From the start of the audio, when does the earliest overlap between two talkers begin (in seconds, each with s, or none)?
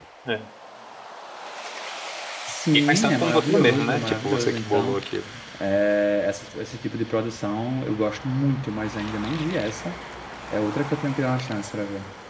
2.9 s